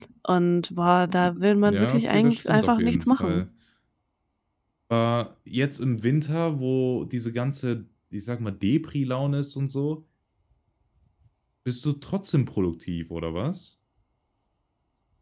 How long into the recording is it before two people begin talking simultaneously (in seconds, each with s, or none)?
1.6 s